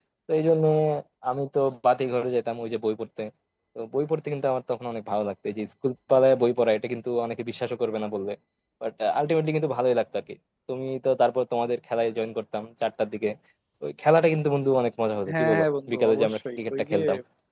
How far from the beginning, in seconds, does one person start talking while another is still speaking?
15 s

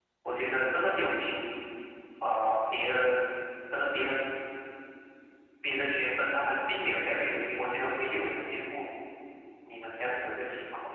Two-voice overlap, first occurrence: none

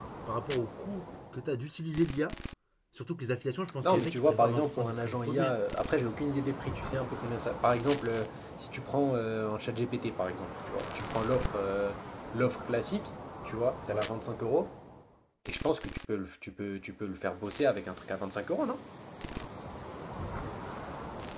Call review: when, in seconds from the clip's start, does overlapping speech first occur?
4 s

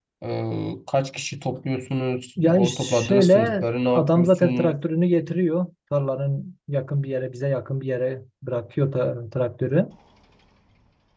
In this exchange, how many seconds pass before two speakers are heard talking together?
2 s

